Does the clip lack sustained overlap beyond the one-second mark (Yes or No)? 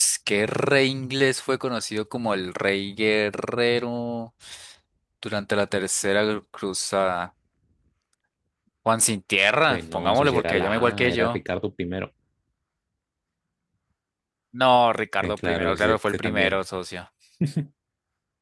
No